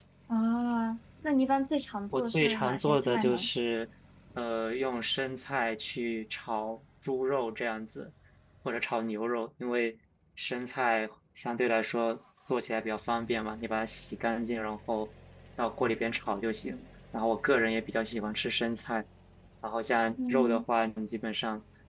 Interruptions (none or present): present